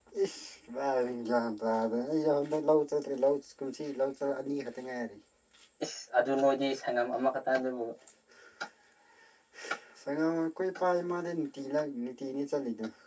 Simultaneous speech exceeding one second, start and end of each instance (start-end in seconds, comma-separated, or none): none